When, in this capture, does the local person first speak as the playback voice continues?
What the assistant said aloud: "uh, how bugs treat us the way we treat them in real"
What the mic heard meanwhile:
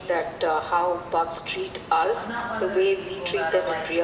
2.1 s

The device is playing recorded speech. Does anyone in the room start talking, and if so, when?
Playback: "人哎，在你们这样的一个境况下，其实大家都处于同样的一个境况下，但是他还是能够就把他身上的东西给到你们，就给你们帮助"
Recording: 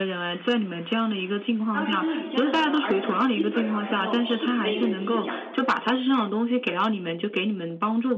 1.7 s

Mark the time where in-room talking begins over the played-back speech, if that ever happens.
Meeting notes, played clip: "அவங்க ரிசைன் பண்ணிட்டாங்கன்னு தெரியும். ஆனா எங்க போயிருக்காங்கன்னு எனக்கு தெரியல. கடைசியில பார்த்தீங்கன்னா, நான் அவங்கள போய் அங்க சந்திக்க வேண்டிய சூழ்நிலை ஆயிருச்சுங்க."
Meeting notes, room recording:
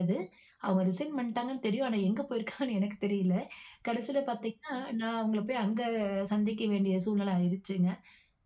none

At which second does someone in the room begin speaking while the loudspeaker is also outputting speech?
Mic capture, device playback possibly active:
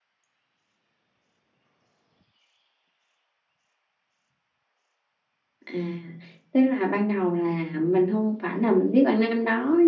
5.7 s

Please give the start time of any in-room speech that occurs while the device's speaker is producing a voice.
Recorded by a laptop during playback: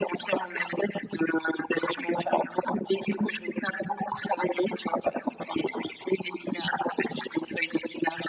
none

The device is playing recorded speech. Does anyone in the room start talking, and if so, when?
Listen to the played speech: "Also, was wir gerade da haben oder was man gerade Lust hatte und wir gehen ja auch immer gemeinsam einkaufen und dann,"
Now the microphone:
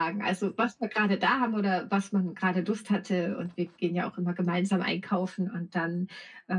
none

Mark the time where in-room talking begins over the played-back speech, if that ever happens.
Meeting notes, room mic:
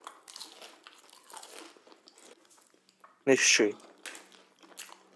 3.3 s

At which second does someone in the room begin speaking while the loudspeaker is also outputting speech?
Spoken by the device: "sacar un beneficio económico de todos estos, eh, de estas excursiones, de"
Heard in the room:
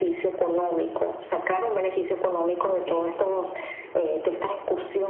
2.6 s

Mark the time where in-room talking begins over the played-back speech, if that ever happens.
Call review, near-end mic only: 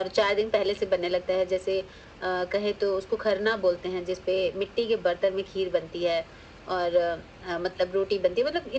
none

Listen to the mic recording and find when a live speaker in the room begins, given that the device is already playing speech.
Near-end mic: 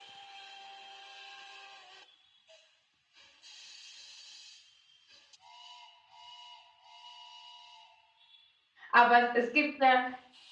8.9 s

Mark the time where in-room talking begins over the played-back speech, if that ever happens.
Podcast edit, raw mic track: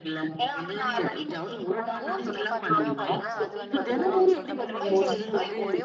2.0 s

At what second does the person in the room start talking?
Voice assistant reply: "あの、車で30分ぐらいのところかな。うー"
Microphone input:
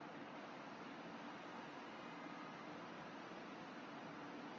none

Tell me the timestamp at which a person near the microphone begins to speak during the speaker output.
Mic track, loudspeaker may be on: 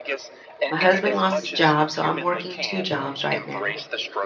0.7 s

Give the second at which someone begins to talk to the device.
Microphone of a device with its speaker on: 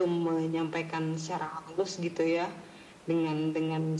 none

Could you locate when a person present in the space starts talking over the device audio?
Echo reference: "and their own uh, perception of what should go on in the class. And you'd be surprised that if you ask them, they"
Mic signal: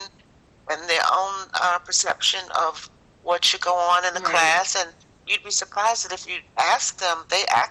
4.1 s

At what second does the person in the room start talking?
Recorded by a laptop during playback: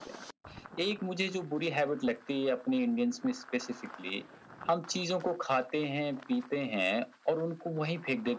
none

